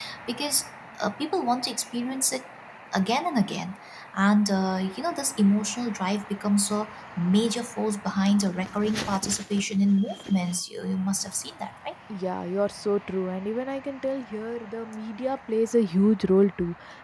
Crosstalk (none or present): none